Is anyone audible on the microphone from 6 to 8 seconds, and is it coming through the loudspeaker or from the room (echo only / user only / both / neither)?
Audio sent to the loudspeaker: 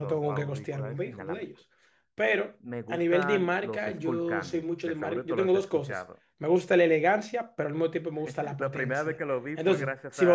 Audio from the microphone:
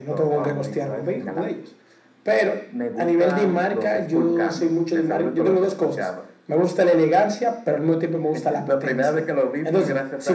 echo only